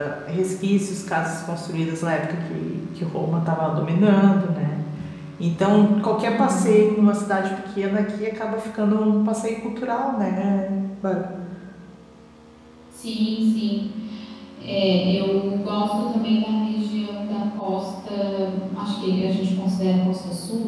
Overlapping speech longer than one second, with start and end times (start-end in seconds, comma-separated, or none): none